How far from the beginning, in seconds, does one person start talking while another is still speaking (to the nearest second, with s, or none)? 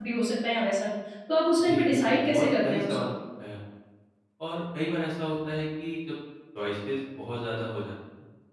2 s